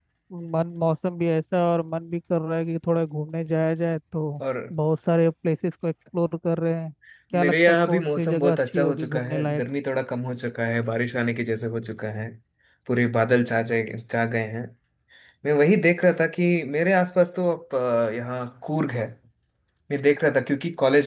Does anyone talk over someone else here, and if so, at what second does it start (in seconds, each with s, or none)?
7.4 s